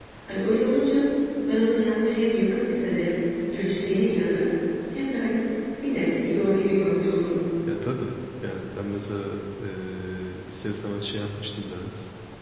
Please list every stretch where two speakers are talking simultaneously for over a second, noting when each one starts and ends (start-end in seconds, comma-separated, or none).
none